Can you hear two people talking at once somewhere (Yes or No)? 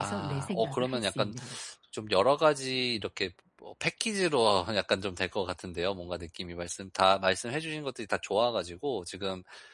Yes